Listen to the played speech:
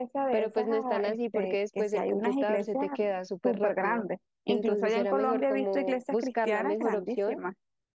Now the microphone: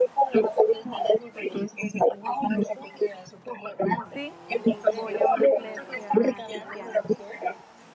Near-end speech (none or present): present